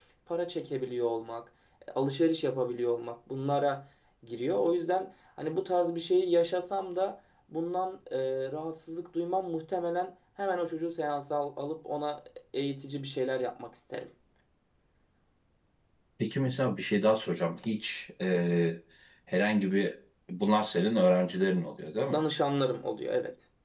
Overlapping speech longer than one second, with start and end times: none

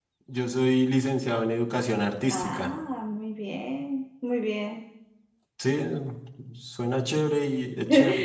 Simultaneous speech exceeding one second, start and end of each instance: none

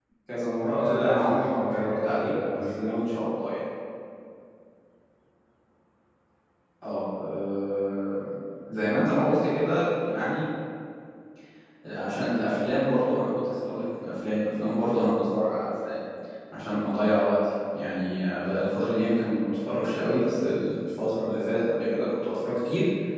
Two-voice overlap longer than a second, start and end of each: 0.7-2.8

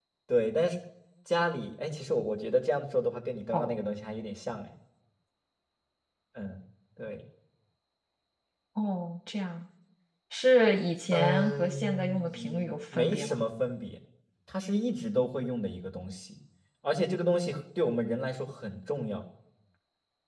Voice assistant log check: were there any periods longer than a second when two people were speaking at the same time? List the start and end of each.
11.1-13.4

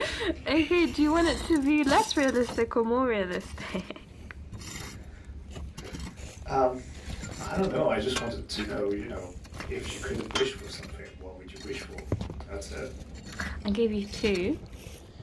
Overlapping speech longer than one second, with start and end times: none

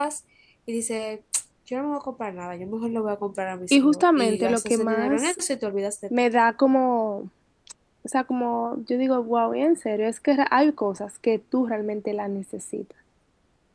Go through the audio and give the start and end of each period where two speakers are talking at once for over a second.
3.7-5.4

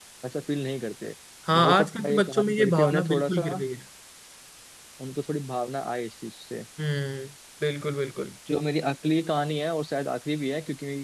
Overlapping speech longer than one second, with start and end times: 1.5-3.6

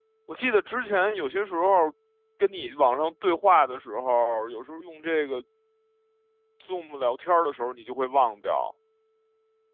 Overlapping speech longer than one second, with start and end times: none

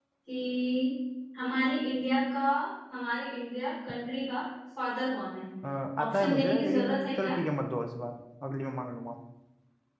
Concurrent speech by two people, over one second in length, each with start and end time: 6.0-7.3

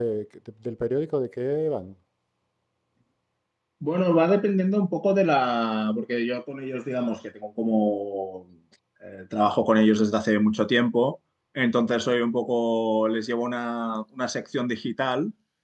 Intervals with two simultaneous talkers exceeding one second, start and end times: none

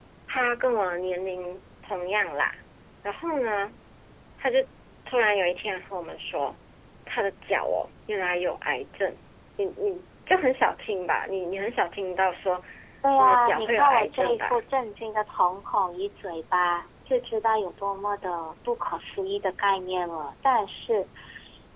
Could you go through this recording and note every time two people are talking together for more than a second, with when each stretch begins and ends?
13.2-14.6

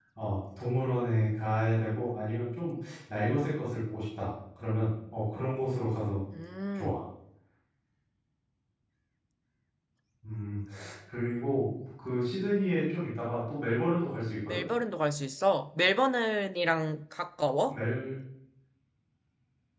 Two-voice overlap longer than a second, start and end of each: none

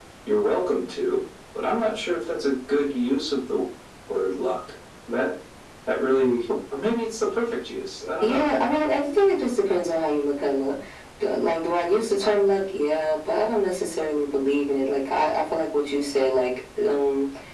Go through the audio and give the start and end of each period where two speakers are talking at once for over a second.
none

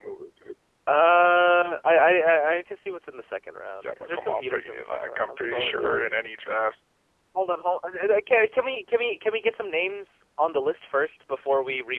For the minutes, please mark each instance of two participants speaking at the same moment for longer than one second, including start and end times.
3.8-6.1

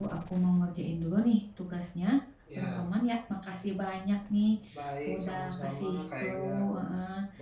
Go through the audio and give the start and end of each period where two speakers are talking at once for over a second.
5.1-6.6

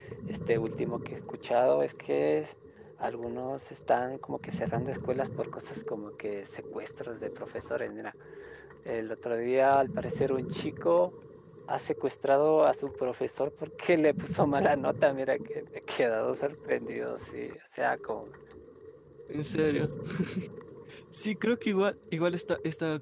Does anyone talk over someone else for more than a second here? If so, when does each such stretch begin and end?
none

